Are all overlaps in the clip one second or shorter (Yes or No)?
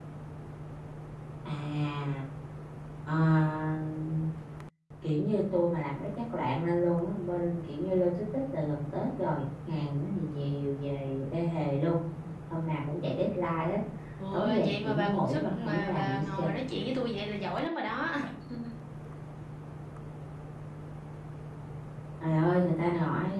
No